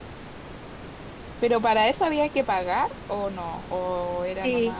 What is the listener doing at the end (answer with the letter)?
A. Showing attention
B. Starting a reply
B